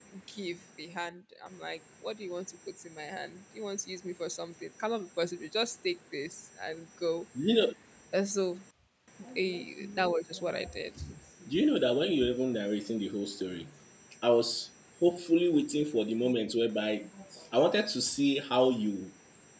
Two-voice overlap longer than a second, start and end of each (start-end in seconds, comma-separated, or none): none